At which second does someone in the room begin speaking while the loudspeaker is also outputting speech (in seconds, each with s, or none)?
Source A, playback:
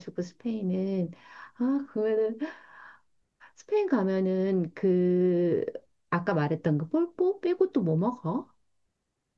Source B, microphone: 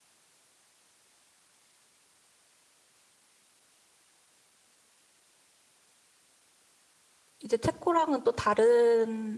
7.4 s